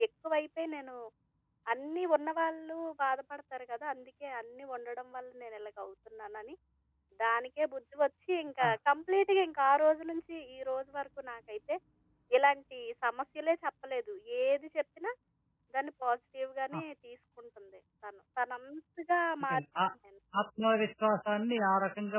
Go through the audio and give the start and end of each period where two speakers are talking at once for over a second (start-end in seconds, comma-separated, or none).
none